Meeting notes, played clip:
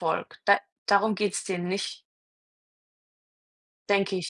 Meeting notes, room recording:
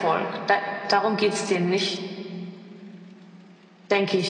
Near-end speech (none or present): none